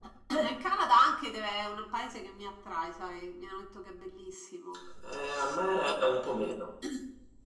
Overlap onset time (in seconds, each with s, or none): none